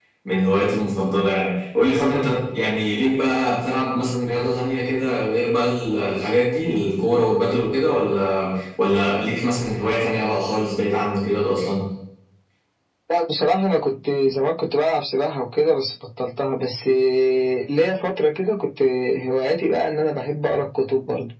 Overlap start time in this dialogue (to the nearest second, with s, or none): none